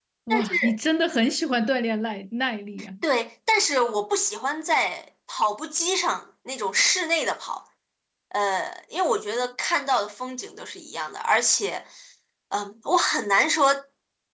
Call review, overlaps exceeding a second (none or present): none